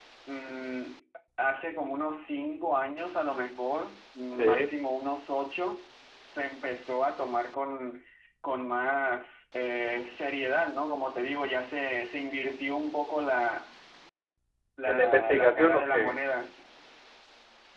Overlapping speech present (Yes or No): Yes